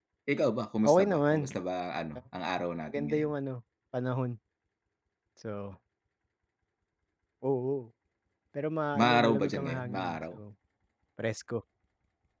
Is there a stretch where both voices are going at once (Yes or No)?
Yes